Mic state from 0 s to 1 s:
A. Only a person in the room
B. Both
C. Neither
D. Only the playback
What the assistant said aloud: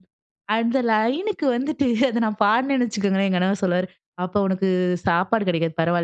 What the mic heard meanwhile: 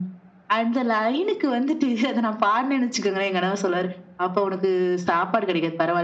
D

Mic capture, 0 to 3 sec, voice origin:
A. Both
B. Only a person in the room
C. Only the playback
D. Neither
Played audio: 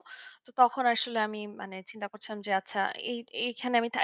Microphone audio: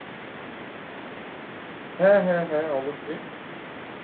B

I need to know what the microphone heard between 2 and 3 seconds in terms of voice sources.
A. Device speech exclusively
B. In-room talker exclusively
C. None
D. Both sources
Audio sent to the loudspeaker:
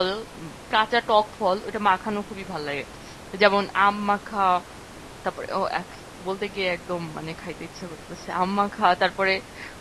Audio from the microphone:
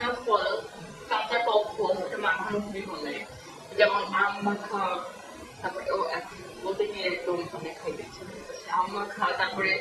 A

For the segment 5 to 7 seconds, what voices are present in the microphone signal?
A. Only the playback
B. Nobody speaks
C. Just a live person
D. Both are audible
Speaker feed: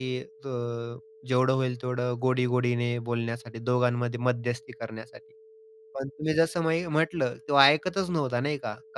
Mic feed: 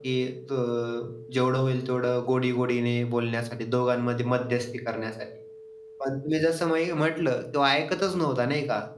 A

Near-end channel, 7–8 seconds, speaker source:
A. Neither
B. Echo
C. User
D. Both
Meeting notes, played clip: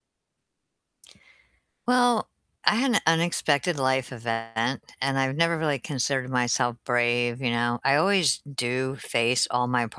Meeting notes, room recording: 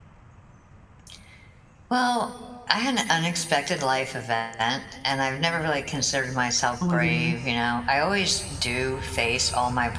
D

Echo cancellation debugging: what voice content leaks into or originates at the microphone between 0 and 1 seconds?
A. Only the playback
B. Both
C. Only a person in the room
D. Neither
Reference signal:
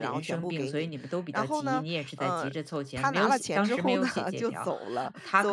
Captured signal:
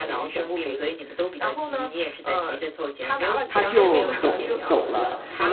A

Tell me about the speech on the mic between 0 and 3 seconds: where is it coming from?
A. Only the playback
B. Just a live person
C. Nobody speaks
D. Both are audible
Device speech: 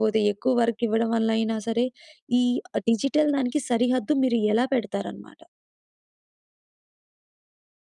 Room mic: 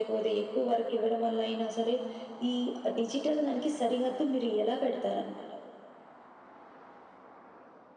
A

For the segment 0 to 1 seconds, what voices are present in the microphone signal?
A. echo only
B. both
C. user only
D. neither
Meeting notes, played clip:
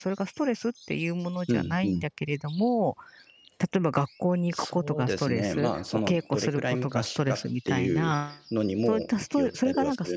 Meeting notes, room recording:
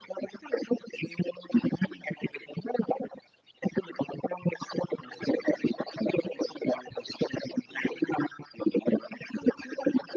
A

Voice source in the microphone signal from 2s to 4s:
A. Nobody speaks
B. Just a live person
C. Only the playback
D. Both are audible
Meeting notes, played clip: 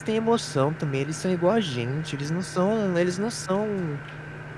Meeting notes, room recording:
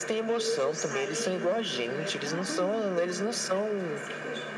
D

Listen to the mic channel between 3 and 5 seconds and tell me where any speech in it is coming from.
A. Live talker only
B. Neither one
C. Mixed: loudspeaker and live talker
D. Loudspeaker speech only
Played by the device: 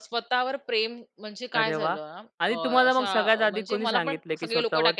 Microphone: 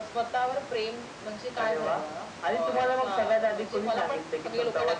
D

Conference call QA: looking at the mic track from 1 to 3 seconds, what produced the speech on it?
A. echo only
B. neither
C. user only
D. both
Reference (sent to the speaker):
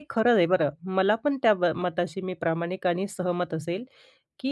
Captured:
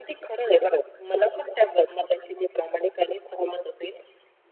A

